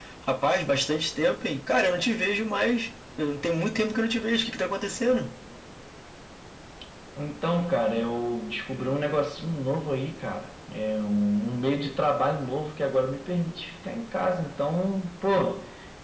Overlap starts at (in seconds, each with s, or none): none